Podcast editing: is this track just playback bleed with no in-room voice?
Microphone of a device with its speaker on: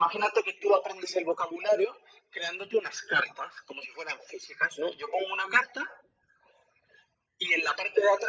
Yes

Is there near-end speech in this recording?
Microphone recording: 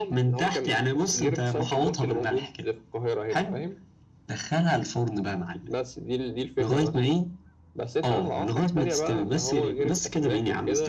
No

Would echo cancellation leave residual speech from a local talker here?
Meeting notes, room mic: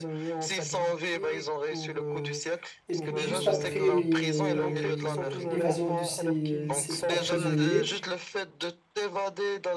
Yes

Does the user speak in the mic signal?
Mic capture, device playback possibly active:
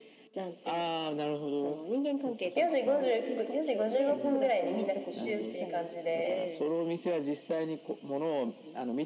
Yes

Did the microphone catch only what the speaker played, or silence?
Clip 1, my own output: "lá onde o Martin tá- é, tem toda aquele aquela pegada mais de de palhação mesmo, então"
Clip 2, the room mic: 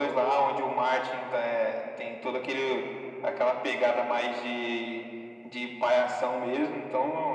Yes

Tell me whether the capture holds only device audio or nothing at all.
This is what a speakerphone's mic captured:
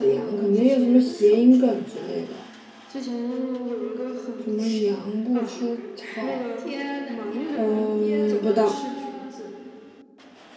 No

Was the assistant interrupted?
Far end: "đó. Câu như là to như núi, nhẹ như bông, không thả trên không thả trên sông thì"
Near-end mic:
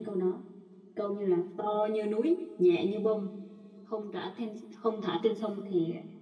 No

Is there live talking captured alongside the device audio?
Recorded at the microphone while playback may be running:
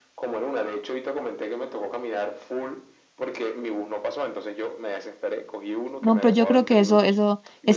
Yes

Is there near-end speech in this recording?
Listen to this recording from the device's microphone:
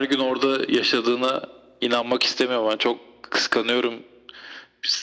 No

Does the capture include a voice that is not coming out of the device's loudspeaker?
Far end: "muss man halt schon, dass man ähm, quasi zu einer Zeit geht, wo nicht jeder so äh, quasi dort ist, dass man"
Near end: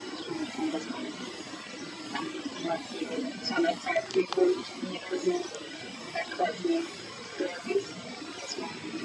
No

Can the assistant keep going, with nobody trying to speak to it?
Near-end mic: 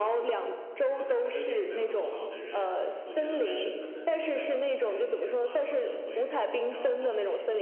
No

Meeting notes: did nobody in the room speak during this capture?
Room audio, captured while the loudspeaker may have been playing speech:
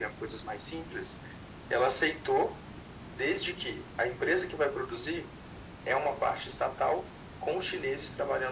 Yes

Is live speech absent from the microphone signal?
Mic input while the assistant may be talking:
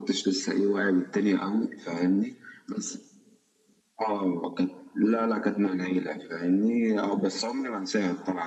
Yes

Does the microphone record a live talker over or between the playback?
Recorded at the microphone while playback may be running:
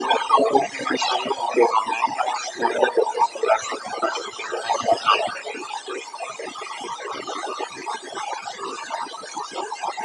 No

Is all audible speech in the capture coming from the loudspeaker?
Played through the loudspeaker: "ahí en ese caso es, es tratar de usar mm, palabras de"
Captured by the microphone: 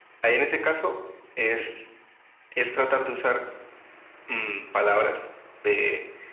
Yes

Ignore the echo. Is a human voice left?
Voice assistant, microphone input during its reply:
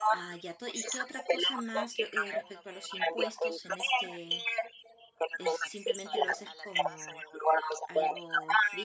Yes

